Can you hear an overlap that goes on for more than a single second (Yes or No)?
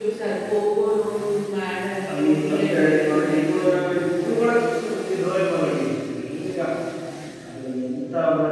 Yes